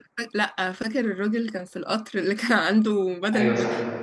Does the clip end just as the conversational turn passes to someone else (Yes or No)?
Yes